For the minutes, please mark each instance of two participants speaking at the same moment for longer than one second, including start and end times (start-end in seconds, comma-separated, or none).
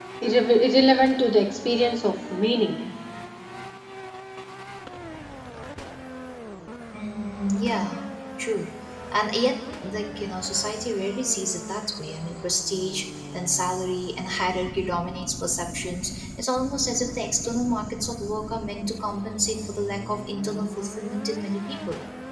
none